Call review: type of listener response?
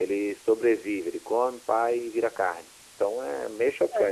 listening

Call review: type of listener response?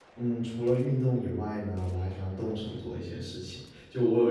listening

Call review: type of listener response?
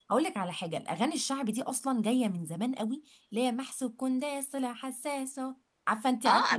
taking over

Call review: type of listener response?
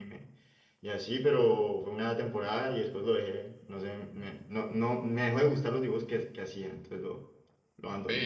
taking over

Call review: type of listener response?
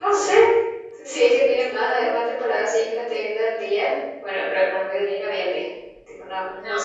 taking over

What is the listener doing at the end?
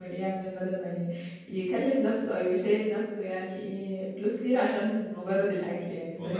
taking over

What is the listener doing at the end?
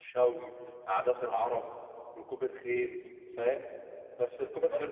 taking over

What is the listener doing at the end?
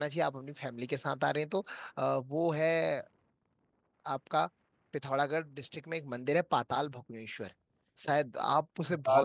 listening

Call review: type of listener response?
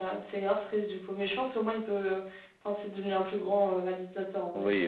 taking over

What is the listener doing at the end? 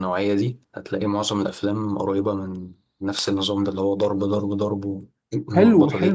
taking over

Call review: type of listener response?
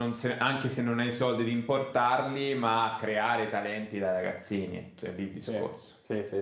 taking over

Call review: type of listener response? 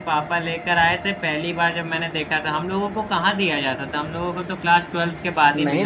taking over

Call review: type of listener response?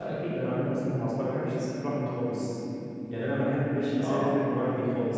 listening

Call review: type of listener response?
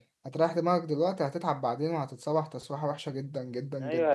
taking over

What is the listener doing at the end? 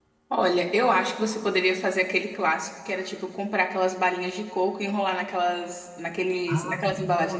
taking over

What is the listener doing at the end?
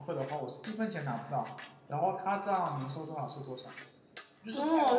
taking over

